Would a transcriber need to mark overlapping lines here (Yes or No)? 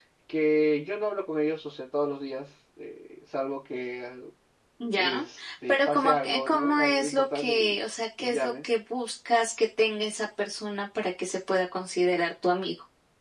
Yes